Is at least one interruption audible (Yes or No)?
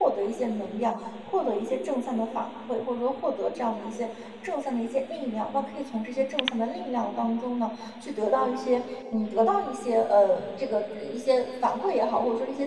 No